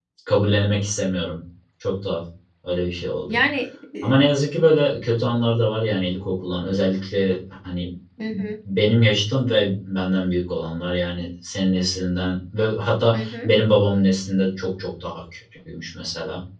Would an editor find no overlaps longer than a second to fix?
Yes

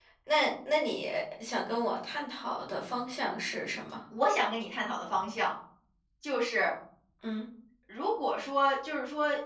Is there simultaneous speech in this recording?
No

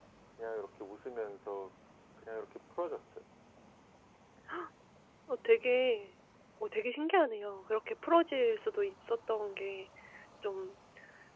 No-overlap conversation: Yes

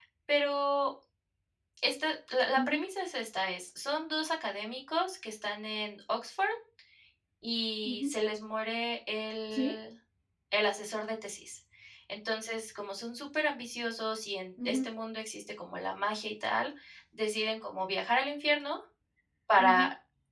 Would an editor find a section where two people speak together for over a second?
No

